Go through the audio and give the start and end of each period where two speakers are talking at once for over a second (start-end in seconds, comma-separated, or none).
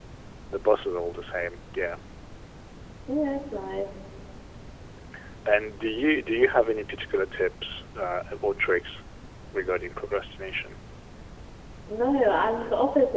none